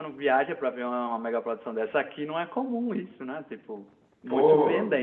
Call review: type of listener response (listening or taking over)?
taking over